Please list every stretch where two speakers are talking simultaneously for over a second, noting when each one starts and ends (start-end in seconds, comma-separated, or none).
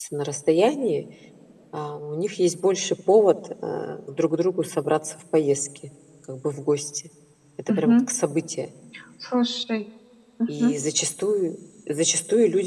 none